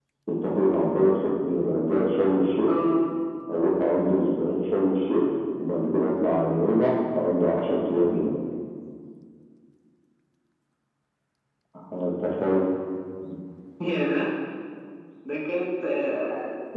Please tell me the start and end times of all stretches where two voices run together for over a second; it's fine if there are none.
none

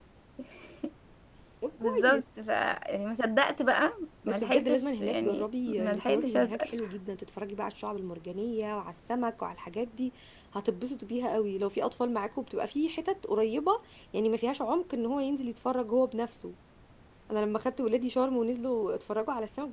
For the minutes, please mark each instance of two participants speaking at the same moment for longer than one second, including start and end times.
4.3-6.8

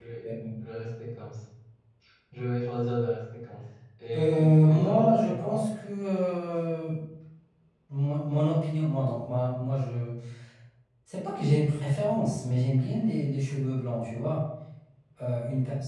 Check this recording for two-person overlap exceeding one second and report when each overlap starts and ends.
4.2-5.7

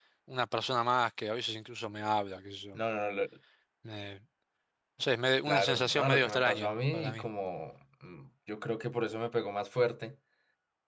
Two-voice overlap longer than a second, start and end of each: 5.5-7.2

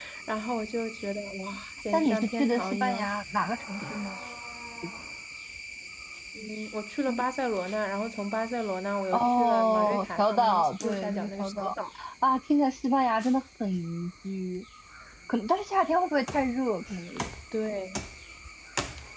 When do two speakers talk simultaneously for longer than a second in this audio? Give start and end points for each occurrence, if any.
1.9-3.1, 9.1-11.7

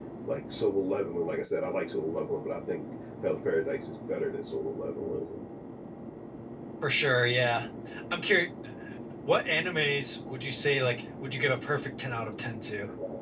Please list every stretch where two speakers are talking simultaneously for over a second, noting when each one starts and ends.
none

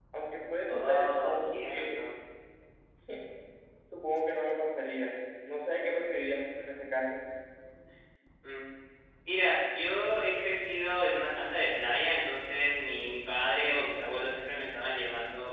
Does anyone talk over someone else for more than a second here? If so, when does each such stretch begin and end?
0.7-2.0

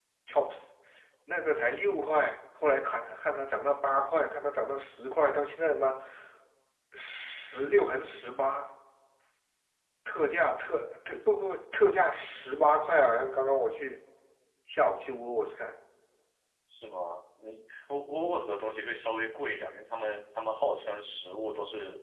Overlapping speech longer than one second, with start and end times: none

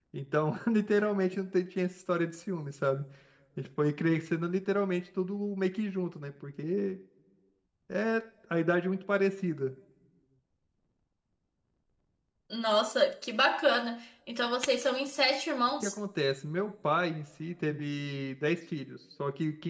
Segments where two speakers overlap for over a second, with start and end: none

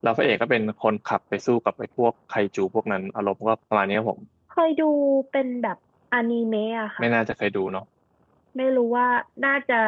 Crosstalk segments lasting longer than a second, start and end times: none

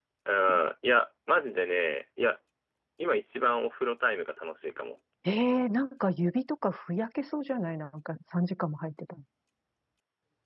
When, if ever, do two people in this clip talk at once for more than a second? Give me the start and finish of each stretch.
none

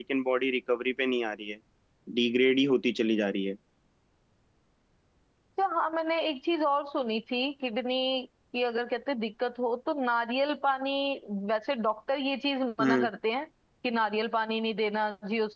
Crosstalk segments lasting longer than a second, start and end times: none

